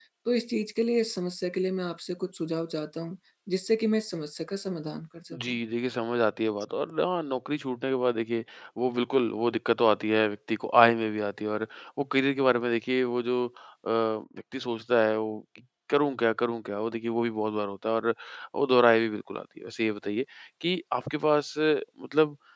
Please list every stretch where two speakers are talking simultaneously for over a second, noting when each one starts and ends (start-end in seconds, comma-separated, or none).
none